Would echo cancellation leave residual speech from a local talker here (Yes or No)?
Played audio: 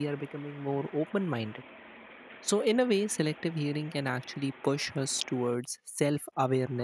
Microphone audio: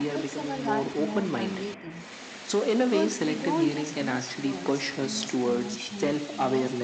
Yes